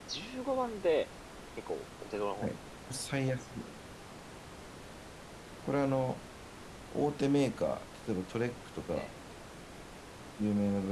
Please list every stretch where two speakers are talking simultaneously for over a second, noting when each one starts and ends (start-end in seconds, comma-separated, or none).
none